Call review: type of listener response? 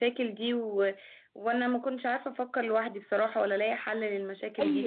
taking over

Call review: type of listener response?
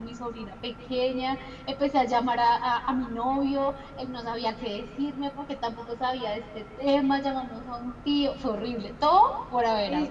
taking over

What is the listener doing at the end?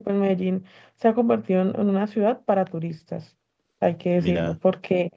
listening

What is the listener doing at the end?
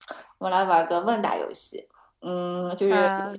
listening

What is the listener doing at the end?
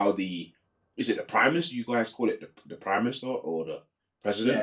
taking over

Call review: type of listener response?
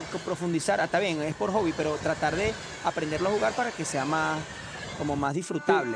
taking over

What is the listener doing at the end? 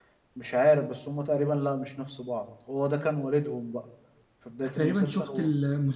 taking over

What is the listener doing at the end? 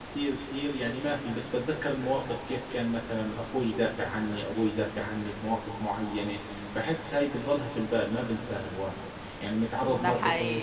listening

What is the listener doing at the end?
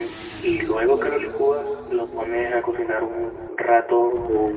listening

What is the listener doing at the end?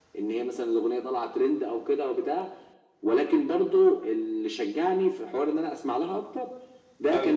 listening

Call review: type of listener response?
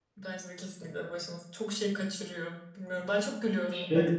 listening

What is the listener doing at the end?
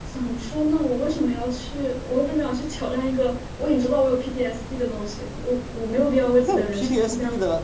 taking over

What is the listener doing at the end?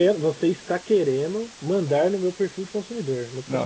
taking over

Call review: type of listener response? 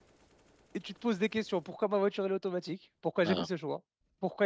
listening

